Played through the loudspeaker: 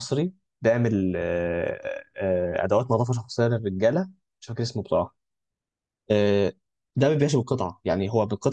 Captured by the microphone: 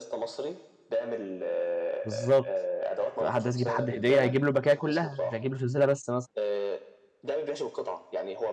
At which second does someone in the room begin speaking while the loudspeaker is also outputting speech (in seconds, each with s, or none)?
2.0 s